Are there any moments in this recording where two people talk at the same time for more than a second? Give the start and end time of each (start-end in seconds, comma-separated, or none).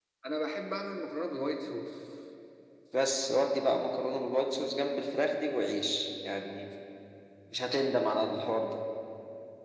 none